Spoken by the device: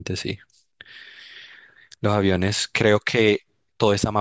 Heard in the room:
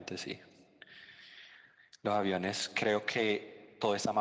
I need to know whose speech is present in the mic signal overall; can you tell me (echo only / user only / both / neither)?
echo only